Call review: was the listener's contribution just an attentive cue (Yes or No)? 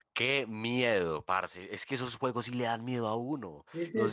Yes